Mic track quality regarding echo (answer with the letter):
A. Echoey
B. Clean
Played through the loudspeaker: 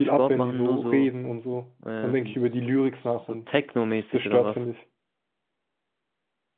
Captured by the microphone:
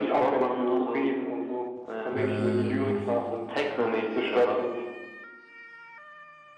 A